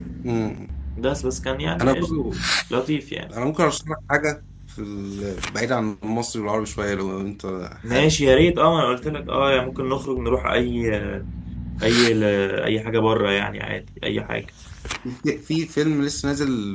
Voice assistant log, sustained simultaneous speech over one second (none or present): none